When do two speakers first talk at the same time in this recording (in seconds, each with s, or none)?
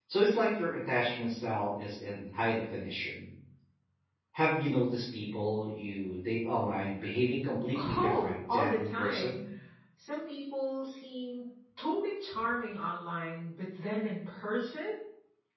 7.8 s